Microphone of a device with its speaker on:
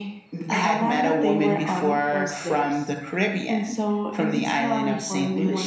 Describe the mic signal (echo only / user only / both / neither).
echo only